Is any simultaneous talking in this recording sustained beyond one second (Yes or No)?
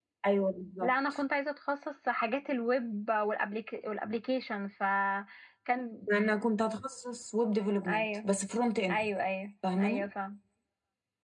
No